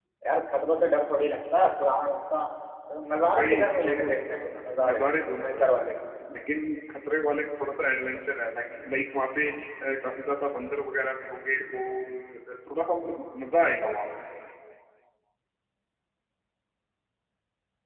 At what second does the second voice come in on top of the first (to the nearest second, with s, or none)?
3 s